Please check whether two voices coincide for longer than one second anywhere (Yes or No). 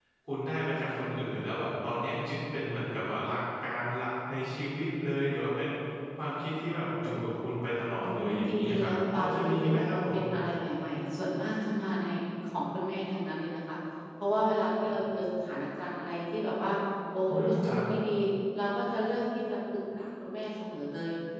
Yes